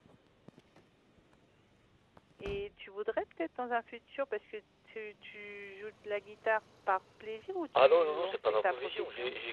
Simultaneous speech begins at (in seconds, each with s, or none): 7.8 s